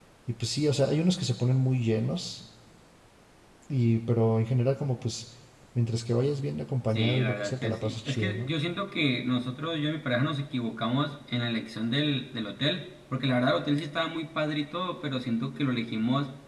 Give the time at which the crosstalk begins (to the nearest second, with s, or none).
7 s